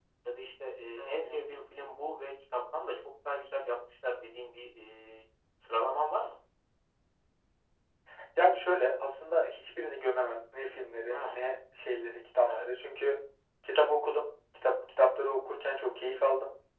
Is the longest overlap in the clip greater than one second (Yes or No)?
No